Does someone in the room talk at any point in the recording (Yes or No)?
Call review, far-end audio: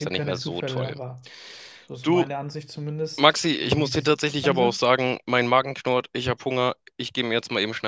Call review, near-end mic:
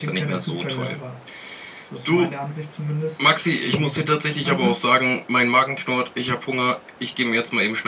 No